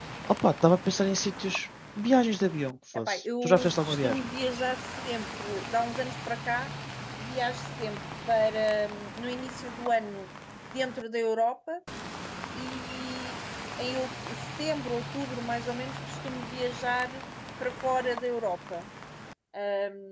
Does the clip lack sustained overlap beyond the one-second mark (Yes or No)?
No